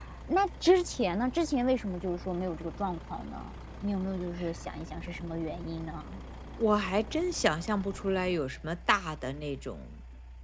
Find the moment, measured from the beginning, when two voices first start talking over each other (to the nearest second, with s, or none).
none